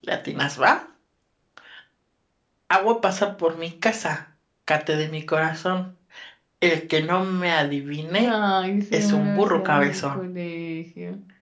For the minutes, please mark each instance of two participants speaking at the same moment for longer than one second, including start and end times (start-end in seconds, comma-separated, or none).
8.9-10.2